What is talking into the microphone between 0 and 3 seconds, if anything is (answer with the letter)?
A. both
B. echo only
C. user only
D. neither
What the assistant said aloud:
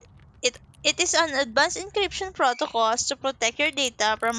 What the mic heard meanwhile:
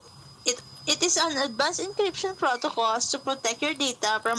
B